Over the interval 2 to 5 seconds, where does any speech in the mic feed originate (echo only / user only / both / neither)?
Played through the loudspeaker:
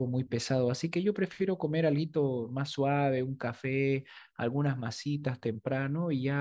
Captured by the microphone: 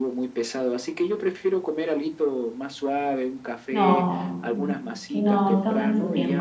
both